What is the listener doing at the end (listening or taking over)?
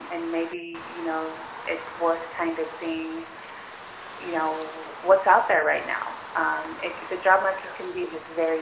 listening